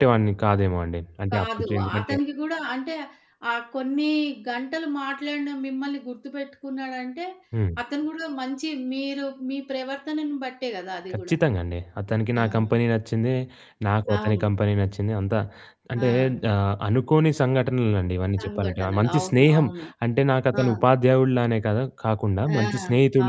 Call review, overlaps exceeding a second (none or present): present